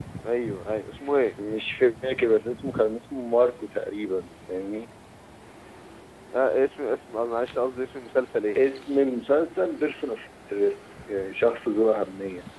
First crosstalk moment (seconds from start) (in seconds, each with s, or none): none